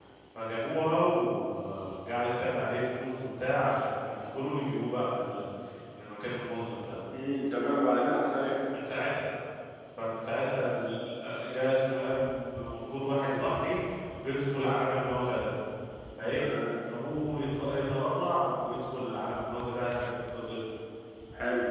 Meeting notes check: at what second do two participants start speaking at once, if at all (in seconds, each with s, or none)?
none